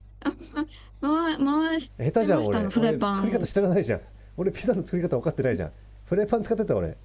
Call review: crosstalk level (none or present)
present